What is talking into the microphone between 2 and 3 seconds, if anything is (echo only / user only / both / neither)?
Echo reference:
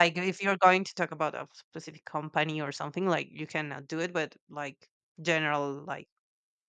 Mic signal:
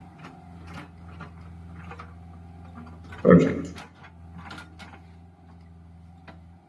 neither